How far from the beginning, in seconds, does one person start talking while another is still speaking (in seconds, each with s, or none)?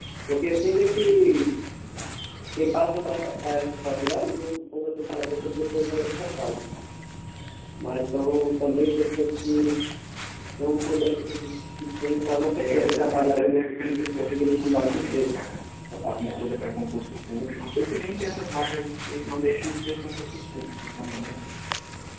12.6 s